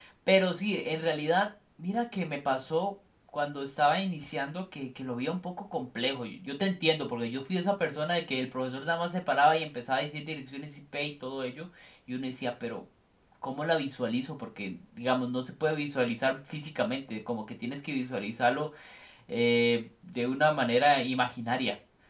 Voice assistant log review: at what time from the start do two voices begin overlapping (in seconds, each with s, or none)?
none